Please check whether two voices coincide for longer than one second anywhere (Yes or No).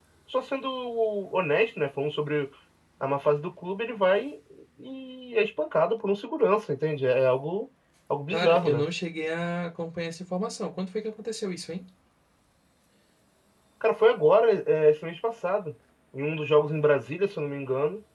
No